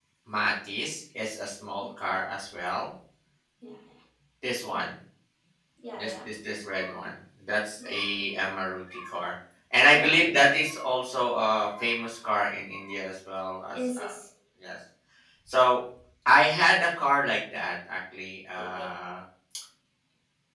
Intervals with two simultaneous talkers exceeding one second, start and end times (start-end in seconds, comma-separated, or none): none